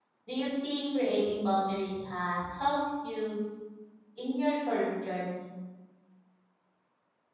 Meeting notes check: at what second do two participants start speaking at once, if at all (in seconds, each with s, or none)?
none